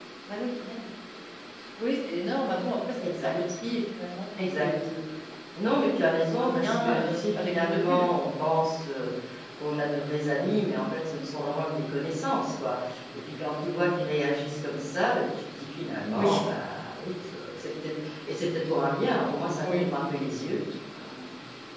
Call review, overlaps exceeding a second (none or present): present